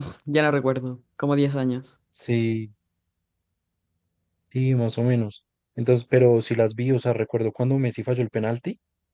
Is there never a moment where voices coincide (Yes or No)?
Yes